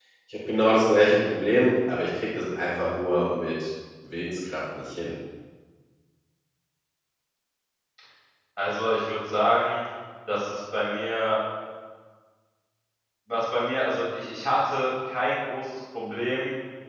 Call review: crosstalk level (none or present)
none